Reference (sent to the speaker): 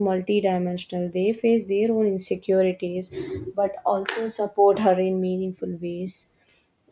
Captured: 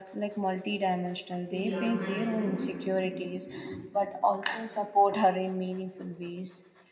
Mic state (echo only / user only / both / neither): both